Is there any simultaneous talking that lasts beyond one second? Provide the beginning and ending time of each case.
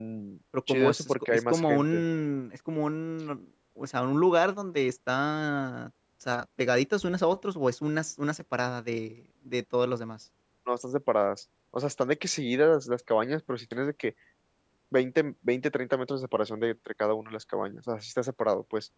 0.7-2.0

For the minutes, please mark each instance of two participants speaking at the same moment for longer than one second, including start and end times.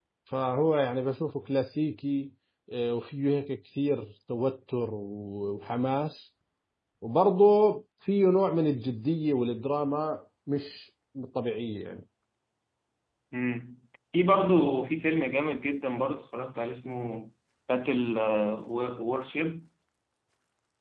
none

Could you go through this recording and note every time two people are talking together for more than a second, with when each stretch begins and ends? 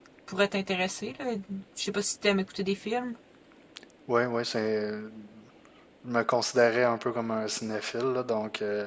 none

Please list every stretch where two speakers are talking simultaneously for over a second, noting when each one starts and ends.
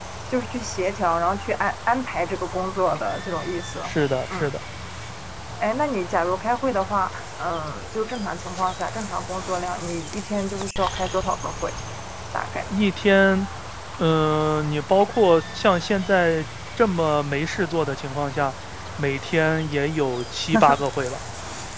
none

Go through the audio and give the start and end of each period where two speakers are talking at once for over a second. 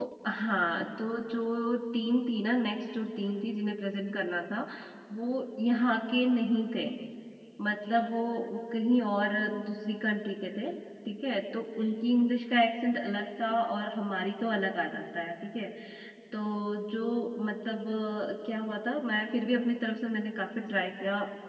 none

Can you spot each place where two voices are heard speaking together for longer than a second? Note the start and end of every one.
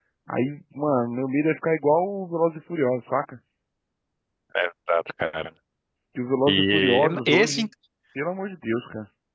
6.5-7.7

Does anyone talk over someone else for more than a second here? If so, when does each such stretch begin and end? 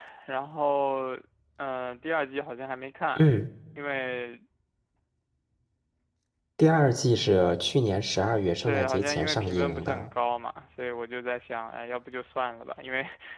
8.6-10.1

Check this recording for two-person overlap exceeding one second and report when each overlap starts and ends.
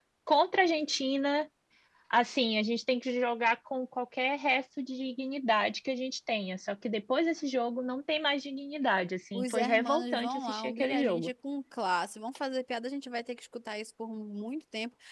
9.4-11.3

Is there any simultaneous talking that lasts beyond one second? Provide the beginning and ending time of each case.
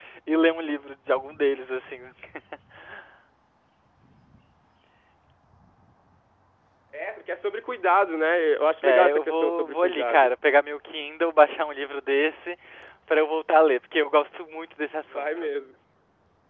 8.8-10.3

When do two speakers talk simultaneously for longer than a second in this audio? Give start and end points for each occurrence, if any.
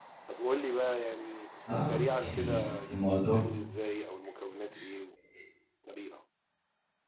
1.7-3.5

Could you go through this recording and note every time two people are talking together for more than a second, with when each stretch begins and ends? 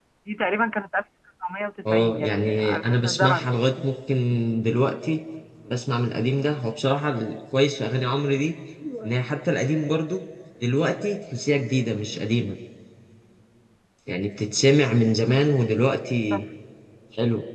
1.8-3.5

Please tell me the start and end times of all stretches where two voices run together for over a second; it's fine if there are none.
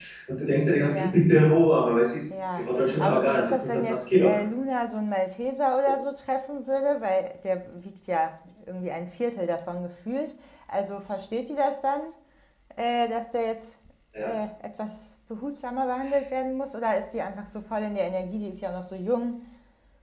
2.5-4.3

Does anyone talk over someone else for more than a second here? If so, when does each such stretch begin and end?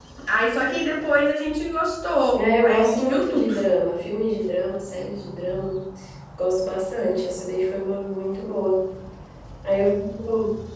2.3-3.5

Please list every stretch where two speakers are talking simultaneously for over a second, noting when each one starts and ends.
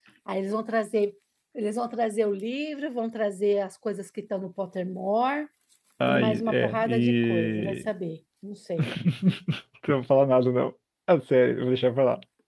6.1-7.9

